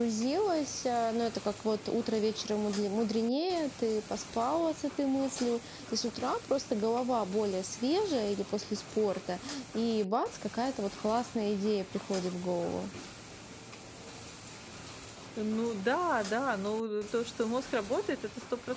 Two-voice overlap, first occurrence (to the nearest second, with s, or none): none